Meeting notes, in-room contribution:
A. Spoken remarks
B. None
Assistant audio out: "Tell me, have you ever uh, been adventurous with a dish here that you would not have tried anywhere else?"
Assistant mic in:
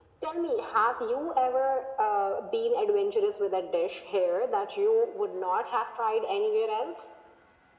B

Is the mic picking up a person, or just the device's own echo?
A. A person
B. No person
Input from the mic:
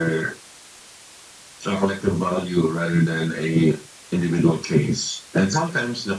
B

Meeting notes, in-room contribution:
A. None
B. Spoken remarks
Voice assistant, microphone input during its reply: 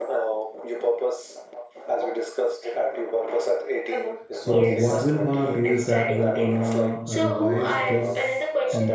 B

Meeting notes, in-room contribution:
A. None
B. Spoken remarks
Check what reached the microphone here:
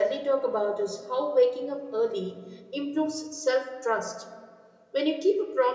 B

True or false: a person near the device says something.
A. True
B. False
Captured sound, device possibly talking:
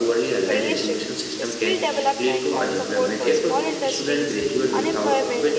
A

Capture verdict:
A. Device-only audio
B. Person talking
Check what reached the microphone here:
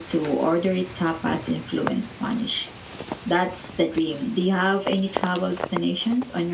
A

